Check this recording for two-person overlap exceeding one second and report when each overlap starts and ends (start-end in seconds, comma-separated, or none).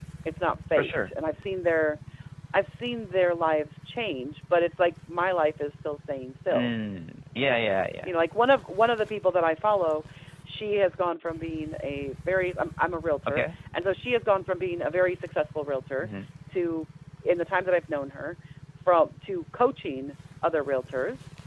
none